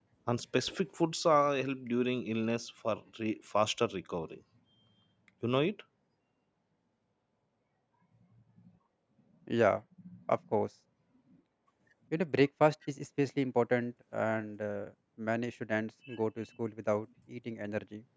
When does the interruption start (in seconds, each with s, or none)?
none